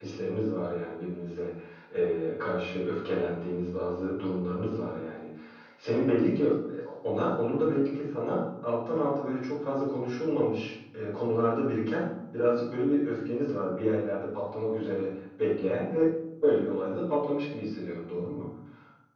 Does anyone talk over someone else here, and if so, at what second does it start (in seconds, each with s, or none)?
none